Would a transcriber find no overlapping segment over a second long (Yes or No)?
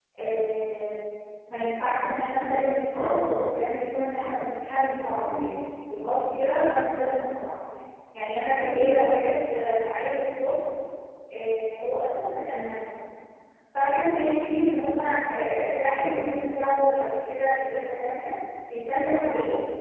Yes